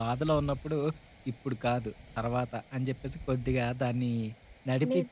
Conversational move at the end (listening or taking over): listening